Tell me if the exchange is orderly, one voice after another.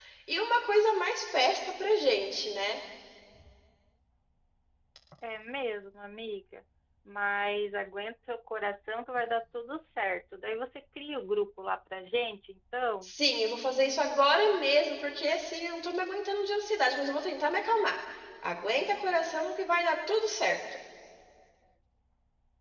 Yes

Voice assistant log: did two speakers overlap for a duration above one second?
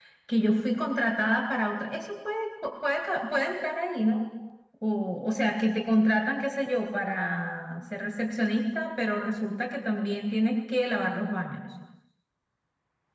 No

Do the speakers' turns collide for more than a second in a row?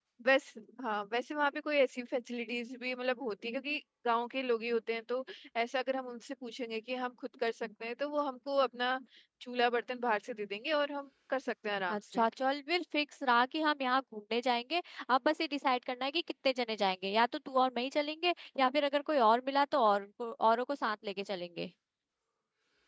No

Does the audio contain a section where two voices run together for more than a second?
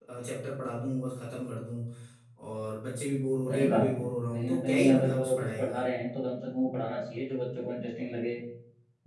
Yes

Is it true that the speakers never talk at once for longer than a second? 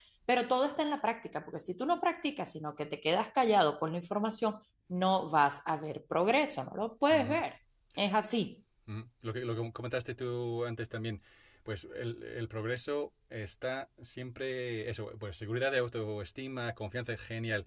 Yes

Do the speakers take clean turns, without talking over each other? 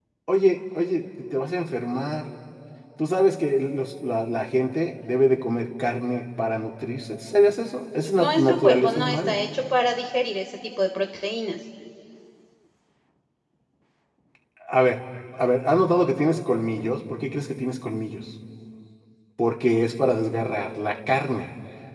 No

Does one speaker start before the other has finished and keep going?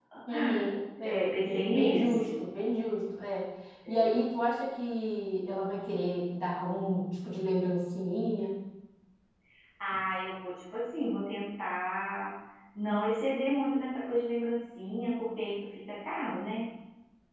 Yes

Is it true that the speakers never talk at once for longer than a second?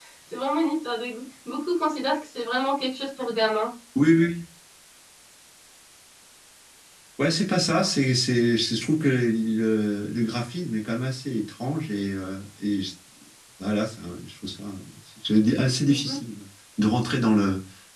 Yes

